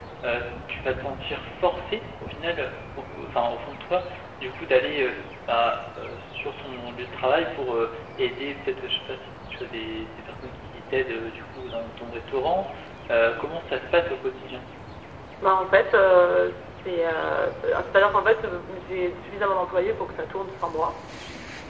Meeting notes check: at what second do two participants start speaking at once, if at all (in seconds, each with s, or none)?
none